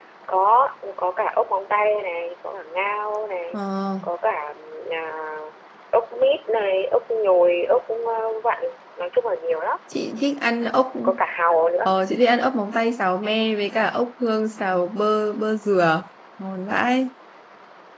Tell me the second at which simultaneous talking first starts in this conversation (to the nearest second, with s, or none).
none